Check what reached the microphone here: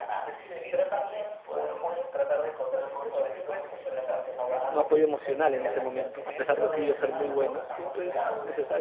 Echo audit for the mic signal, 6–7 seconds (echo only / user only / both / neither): both